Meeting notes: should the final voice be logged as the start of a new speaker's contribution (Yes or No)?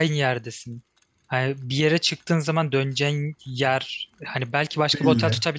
No